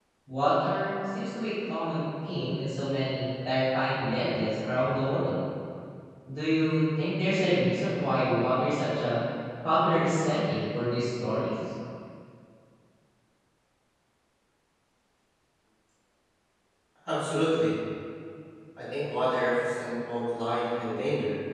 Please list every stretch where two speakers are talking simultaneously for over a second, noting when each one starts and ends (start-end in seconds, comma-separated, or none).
none